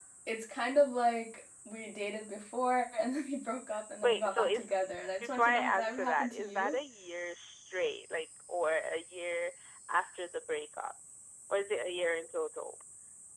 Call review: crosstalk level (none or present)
present